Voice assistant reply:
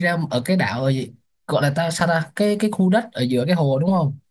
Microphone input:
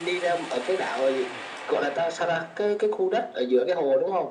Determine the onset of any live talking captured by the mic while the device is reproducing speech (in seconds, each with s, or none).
none